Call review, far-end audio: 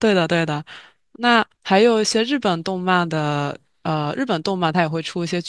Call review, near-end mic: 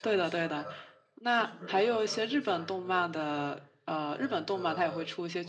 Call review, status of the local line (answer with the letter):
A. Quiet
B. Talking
B